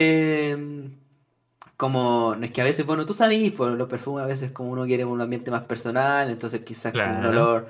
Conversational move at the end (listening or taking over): listening